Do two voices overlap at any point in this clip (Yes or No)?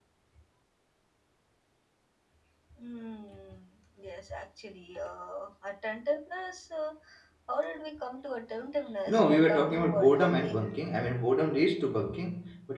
Yes